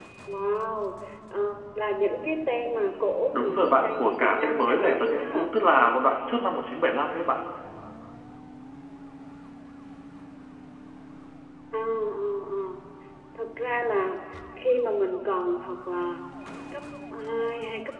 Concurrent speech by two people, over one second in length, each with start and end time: 3.3-5.5

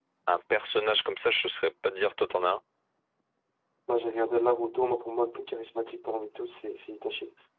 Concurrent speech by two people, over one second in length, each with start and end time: none

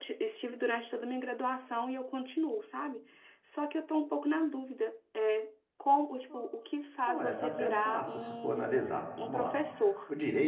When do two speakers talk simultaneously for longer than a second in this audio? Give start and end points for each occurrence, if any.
7.1-9.6

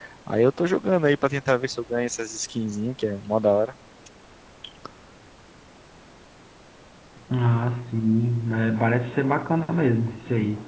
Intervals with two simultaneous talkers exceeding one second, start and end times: none

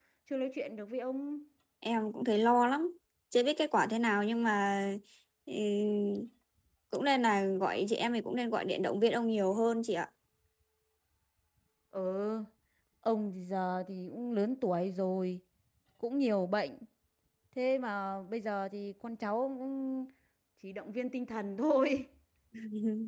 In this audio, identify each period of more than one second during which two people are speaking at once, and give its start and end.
none

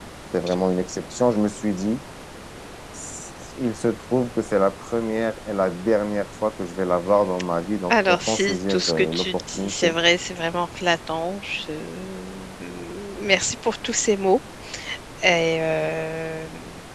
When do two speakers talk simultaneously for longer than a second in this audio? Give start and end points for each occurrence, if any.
7.9-9.9

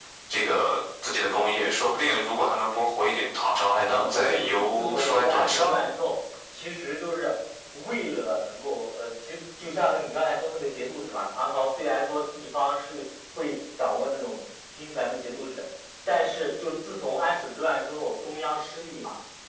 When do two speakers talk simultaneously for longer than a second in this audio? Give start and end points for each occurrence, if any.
3.8-5.8

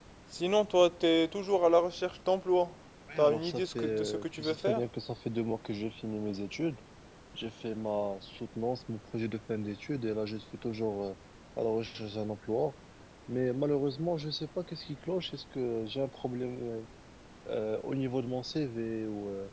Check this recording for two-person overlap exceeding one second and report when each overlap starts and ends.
3.2-4.8

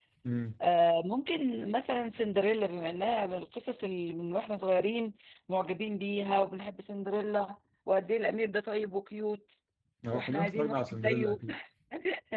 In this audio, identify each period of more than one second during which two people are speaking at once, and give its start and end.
10.1-11.4

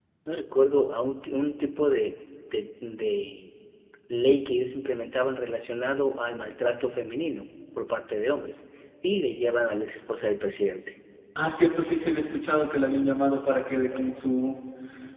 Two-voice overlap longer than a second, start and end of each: none

